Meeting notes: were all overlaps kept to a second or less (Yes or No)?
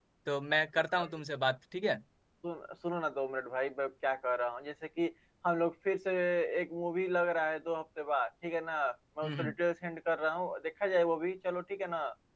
Yes